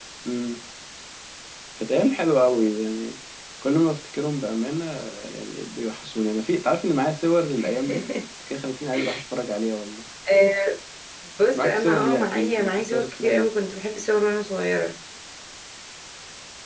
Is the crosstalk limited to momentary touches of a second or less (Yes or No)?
No